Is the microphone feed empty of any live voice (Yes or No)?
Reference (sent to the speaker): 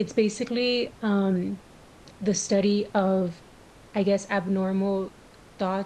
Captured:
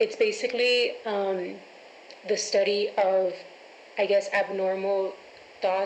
Yes